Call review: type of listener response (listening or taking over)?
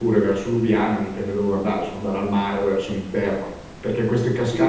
taking over